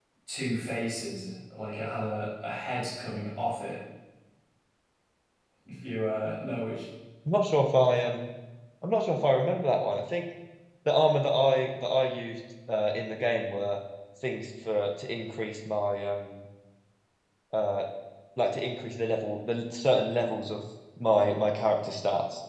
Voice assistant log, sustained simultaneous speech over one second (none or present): none